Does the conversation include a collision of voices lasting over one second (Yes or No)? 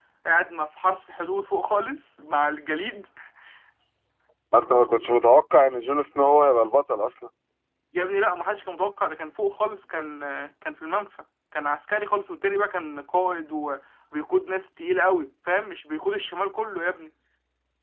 No